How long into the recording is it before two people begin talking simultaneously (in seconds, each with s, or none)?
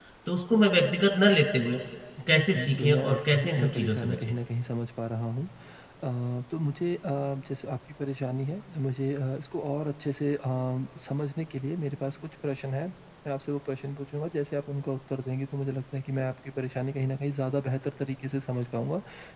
2.3 s